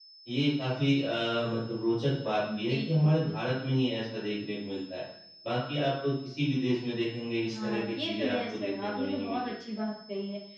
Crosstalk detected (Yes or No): Yes